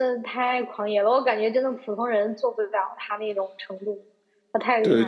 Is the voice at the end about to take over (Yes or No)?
Yes